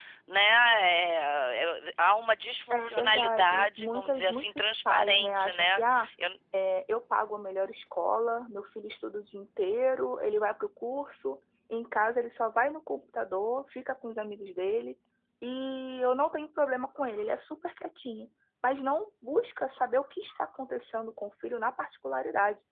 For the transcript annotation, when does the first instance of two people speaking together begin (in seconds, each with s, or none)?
2.7 s